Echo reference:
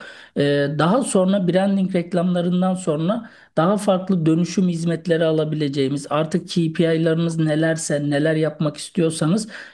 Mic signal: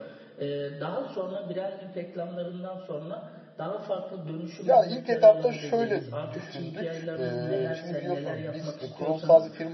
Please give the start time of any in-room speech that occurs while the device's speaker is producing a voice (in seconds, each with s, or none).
4.6 s